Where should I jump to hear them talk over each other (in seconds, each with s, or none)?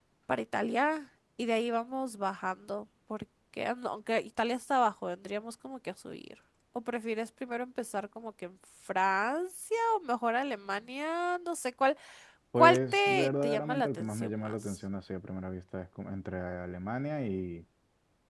12.6 s